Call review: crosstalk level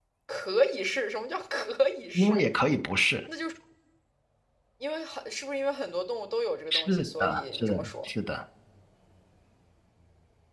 present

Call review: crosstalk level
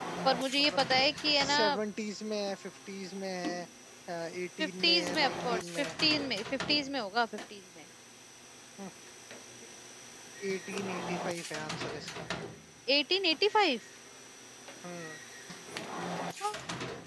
present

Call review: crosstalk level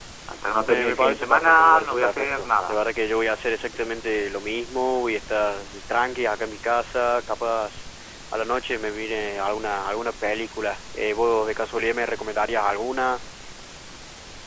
present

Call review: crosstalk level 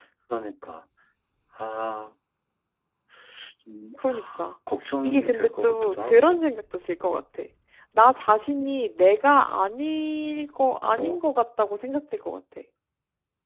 present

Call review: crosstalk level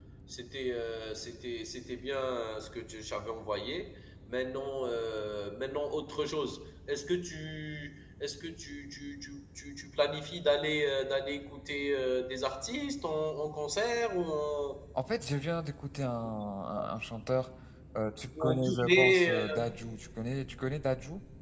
present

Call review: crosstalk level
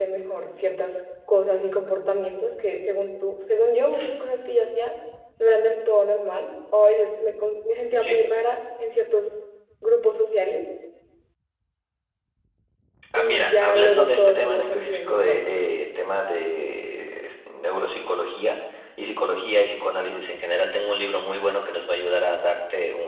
present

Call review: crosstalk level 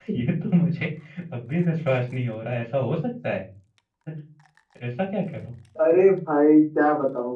none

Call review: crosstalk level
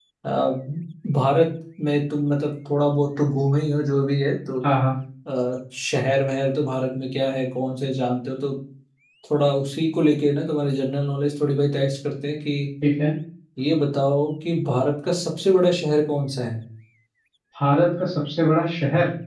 none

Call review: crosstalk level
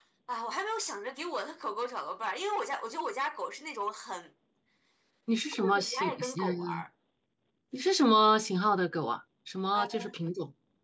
present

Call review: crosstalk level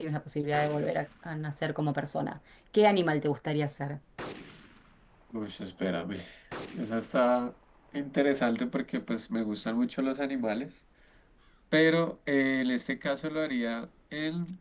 none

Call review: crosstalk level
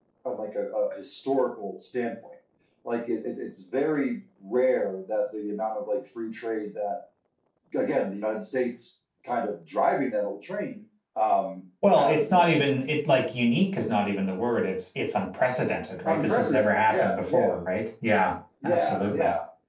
present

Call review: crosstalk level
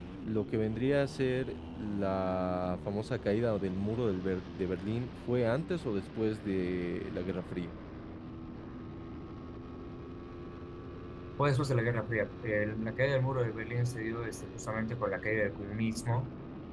none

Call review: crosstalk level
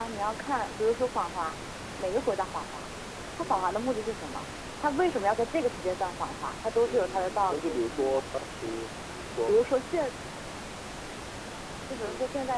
present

